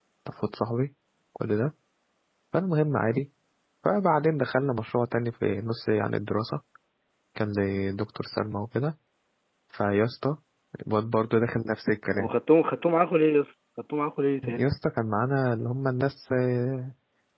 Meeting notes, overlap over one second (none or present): none